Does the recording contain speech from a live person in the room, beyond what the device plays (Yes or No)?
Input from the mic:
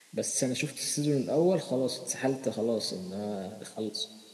Yes